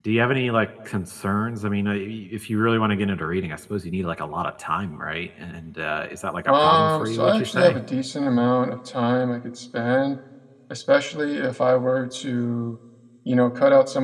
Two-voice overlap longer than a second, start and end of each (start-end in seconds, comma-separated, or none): 6.5-7.8